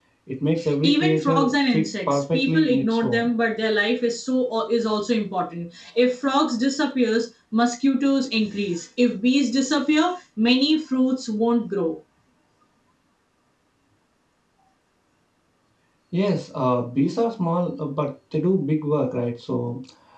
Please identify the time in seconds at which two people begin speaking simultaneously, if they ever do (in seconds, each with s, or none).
0.8 s